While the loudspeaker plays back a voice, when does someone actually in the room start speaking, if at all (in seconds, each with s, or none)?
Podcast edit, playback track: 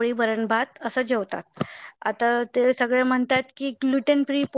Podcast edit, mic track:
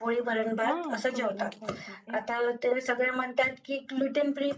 0.7 s